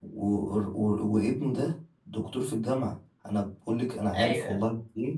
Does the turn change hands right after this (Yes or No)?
No